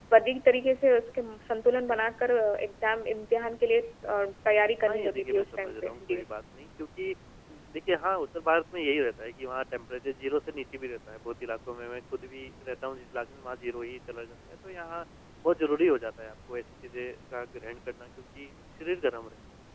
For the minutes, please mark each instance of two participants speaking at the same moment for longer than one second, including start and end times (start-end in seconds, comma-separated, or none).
4.9-6.2